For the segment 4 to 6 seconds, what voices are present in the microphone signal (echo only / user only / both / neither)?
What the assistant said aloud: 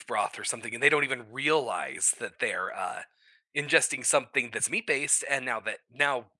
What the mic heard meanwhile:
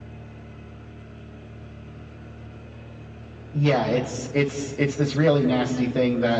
user only